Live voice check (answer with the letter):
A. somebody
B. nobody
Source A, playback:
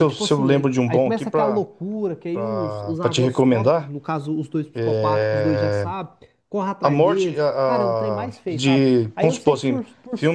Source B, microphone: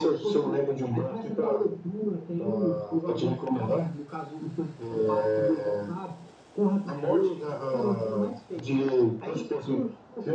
B